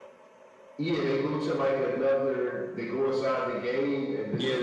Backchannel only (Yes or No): No